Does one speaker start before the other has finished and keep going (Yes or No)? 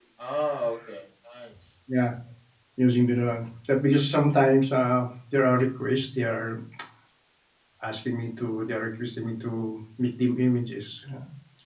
No